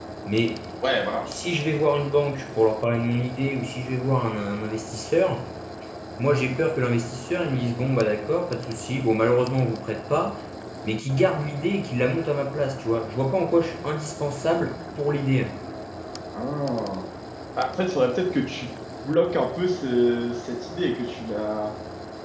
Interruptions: none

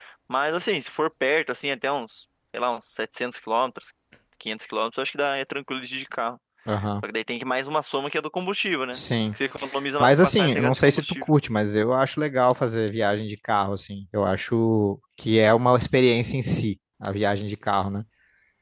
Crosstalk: present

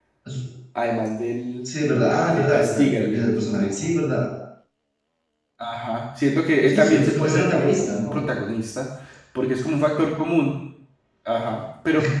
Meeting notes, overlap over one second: present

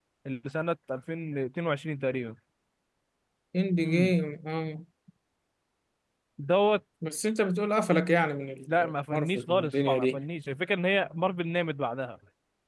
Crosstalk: present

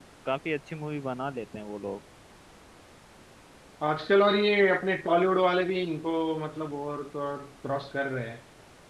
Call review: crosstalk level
none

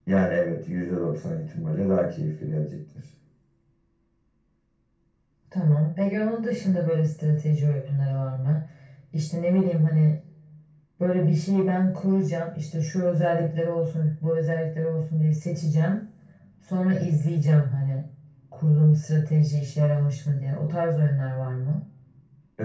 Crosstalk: none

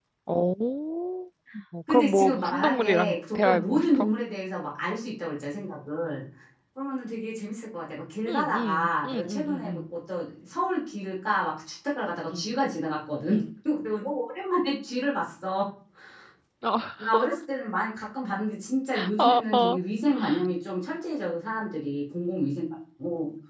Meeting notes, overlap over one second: present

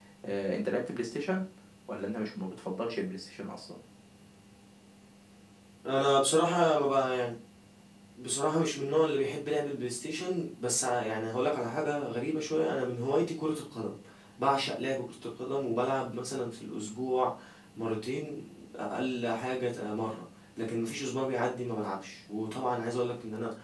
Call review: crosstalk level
none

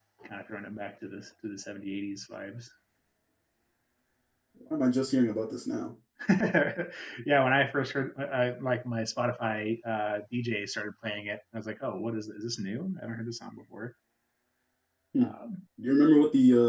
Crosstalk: none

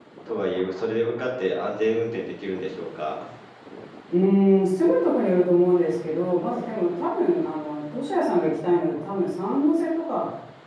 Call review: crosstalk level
none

